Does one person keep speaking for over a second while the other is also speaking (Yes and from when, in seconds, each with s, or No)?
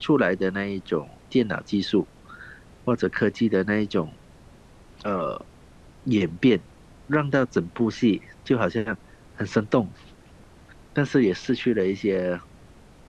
No